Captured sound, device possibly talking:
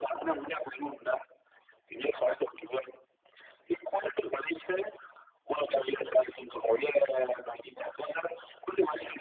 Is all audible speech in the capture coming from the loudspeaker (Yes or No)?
Yes